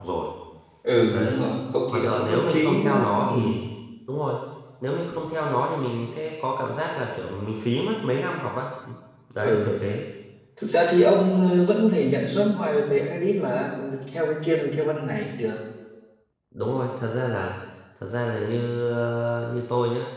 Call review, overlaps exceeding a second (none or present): present